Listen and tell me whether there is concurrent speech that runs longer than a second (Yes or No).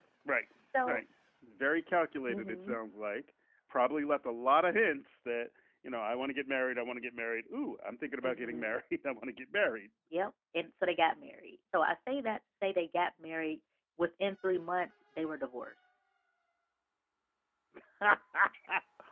No